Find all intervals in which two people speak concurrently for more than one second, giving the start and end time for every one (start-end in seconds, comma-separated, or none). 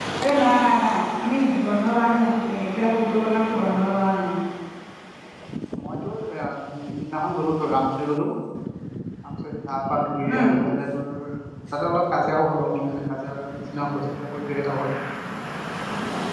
none